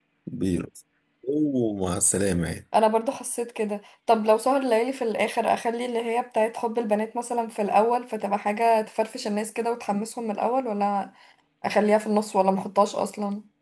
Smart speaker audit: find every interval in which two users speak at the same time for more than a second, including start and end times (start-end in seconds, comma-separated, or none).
none